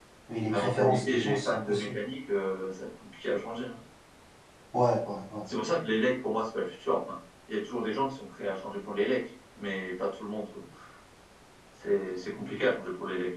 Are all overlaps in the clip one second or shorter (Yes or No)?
No